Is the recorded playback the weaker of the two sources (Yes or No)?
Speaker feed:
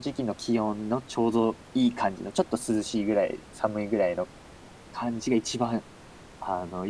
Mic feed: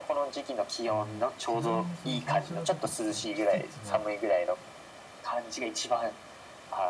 No